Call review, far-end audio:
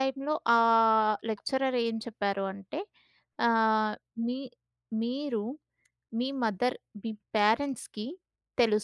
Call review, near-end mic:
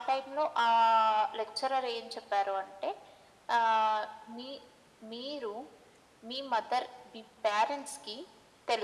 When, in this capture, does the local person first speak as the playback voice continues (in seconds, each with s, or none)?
none